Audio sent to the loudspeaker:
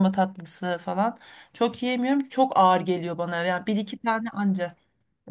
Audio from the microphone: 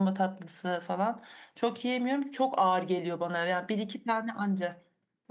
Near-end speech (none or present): none